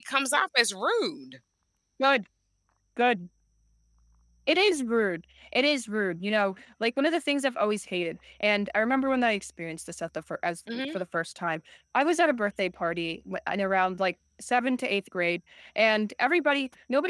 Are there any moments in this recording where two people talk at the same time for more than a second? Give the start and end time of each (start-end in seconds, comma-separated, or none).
none